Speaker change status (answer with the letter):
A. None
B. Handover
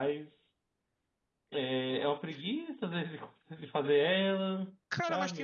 B